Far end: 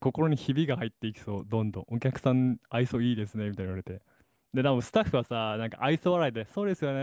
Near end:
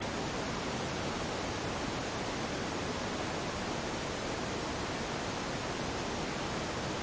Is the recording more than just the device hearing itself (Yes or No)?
No